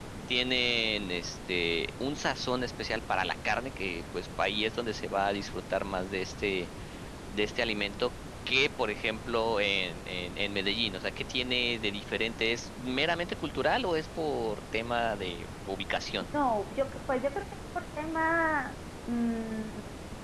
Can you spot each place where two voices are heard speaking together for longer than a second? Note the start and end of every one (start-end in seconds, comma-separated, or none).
none